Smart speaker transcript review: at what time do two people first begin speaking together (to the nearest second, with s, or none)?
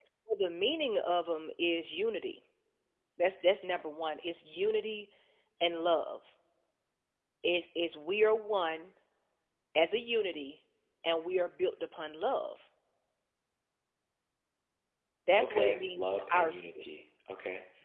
15 s